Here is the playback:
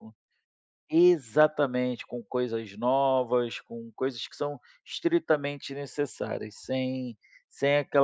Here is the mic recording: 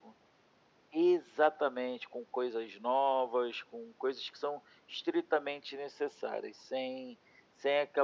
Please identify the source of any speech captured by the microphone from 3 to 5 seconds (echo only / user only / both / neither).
echo only